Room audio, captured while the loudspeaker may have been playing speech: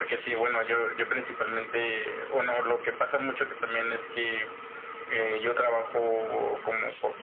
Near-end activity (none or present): none